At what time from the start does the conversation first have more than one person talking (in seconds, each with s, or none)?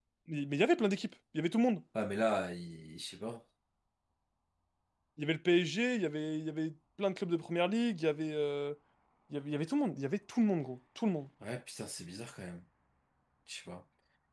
none